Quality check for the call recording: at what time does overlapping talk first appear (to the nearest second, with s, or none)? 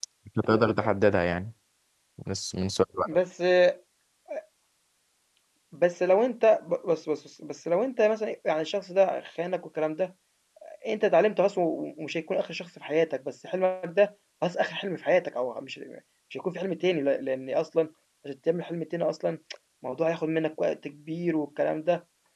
none